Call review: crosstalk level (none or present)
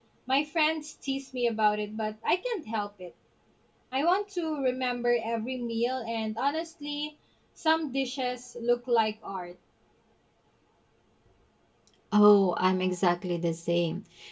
none